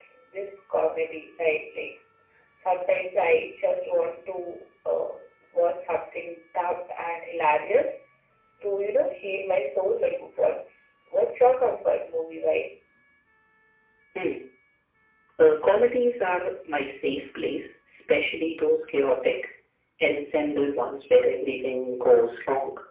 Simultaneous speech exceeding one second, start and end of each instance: none

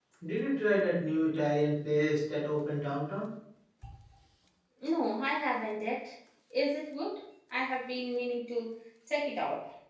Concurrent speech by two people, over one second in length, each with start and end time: none

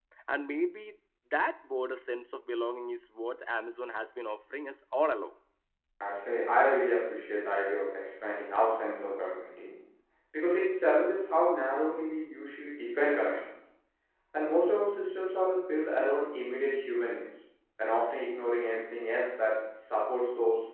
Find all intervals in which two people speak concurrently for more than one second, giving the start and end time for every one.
none

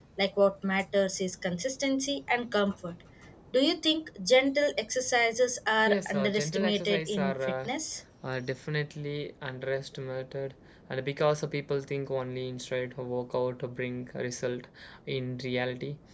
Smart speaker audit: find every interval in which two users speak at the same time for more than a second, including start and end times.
5.9-7.7

